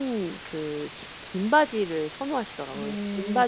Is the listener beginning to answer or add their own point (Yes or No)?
Yes